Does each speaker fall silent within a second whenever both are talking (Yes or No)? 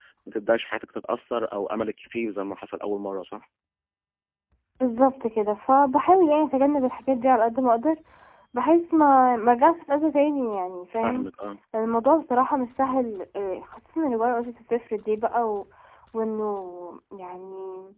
Yes